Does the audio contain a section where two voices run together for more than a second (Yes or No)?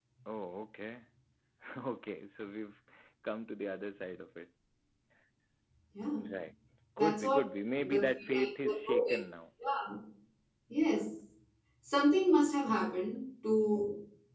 Yes